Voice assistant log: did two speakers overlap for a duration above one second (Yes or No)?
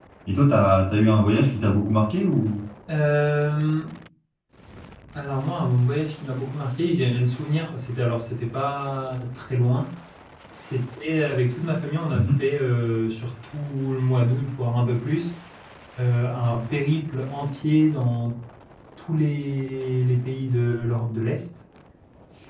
No